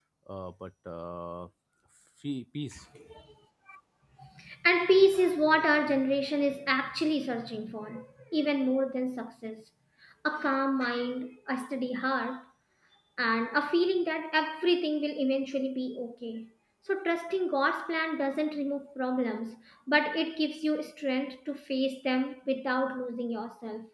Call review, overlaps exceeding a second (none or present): none